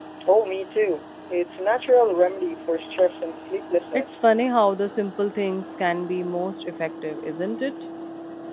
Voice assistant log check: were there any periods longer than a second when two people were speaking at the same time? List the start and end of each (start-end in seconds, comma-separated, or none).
none